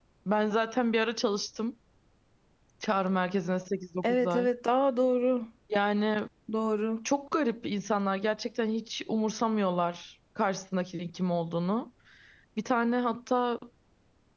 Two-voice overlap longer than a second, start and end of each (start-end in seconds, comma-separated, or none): none